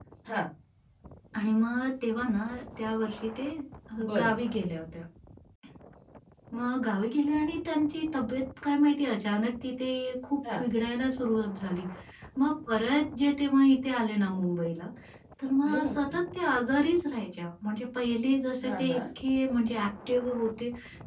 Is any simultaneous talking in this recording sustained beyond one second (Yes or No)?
No